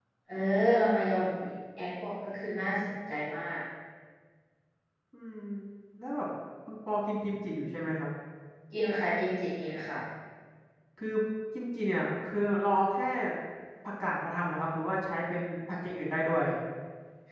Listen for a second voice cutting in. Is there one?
No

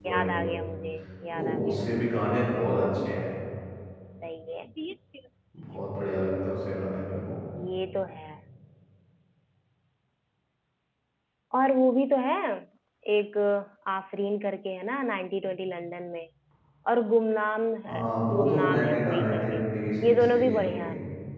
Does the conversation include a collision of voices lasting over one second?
Yes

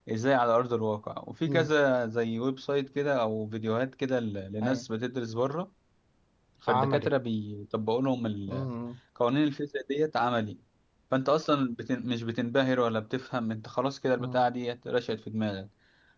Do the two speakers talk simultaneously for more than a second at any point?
No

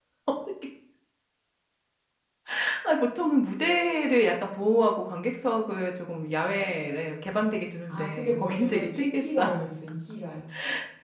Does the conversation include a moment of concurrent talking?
Yes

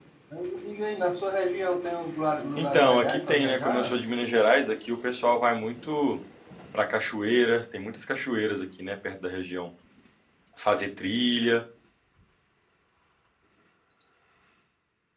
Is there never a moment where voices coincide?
No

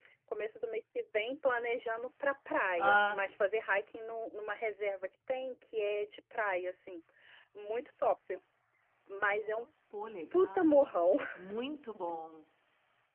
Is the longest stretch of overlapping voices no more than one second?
Yes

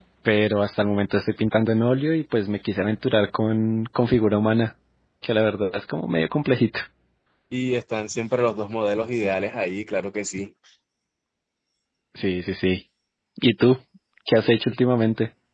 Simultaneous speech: No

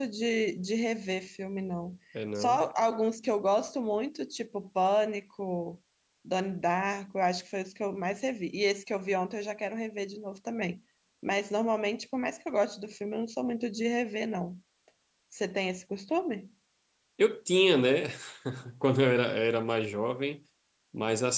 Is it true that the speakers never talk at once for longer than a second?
Yes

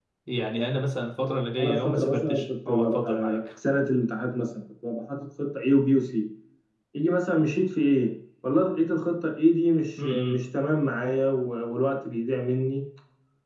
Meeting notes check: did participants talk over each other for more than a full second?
Yes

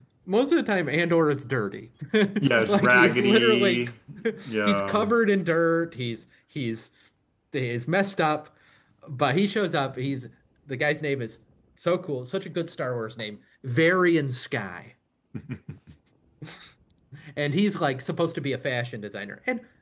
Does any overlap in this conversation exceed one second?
Yes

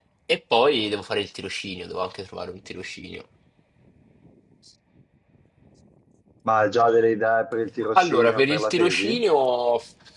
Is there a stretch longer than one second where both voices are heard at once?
Yes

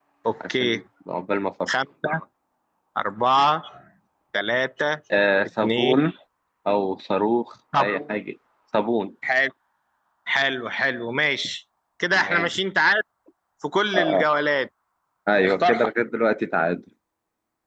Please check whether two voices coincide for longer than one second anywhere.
No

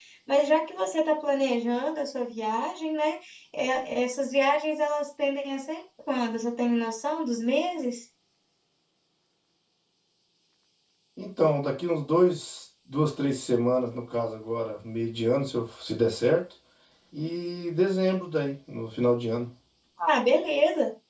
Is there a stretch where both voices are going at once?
No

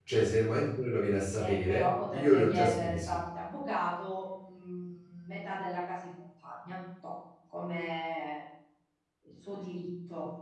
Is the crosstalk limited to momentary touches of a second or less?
No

